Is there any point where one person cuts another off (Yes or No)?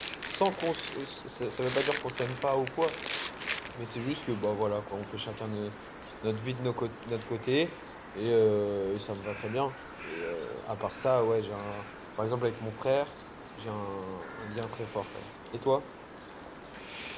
No